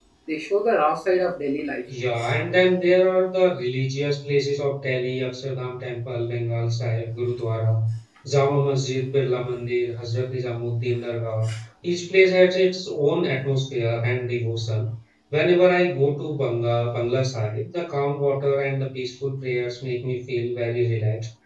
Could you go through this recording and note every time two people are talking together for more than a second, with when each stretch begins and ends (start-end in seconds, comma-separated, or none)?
none